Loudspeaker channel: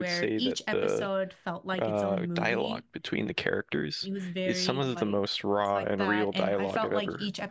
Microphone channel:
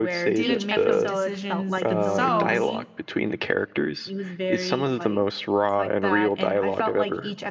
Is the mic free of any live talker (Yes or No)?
No